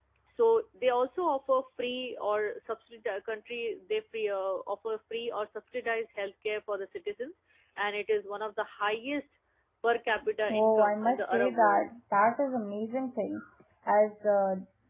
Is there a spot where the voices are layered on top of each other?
Yes, from 10.5 s

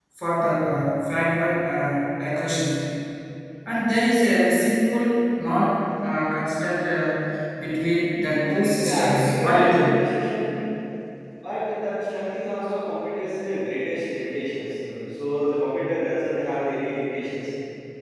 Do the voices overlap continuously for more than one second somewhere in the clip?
Yes, from 8.4 s

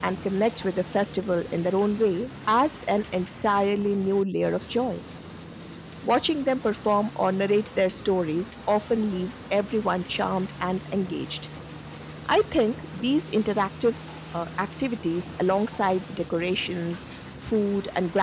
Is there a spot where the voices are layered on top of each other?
No

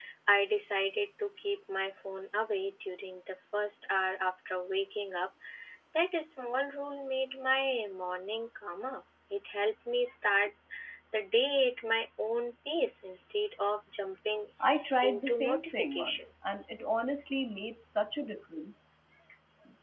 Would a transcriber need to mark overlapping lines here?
Yes, from 15.0 s

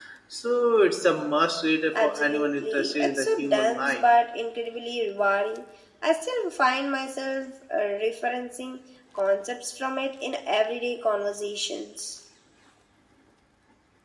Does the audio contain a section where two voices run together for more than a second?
Yes, from 1.9 s

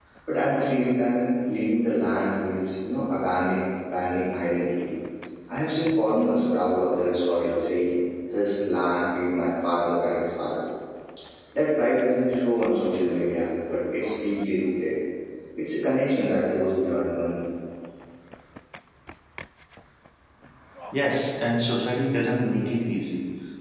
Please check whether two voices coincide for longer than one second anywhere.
No

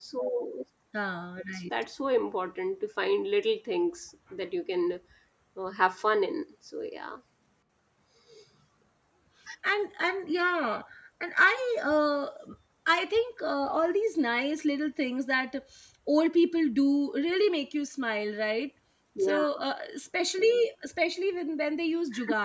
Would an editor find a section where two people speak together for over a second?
No

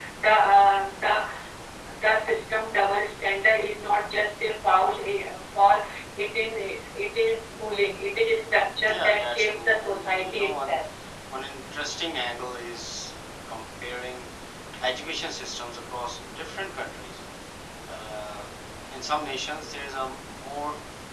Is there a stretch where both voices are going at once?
Yes, from 8.9 s

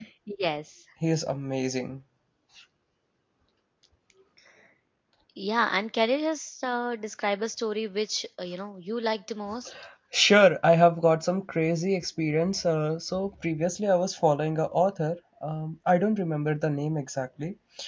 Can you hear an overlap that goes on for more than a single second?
No

